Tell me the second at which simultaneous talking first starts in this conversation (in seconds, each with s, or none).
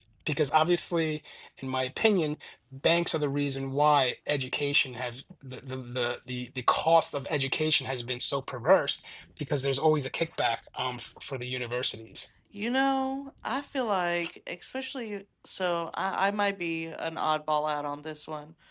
none